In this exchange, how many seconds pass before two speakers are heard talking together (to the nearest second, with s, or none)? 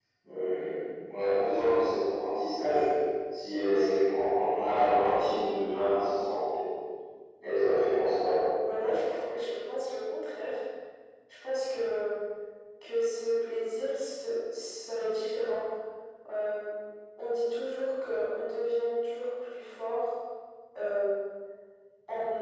none